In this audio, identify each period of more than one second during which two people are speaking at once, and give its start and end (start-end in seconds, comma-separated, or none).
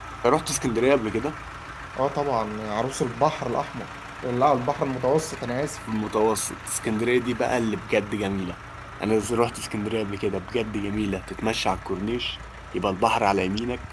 none